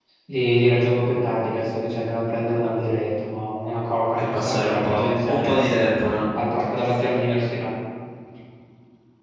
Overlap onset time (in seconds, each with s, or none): 4.3 s